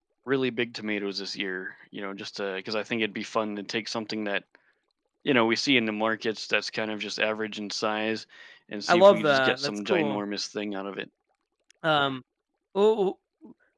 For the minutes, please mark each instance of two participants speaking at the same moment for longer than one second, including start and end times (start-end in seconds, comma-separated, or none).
8.9-10.2